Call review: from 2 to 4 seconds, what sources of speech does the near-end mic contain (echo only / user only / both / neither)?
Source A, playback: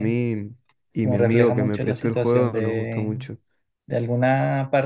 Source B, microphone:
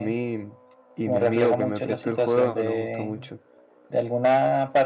echo only